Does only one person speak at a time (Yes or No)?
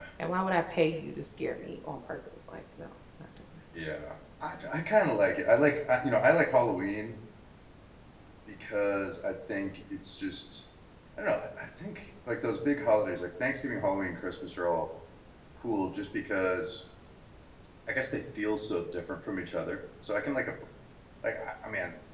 Yes